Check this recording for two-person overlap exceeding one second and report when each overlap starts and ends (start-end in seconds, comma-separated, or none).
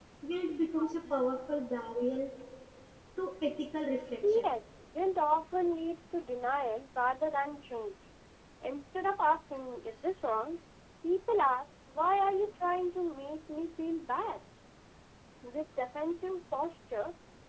none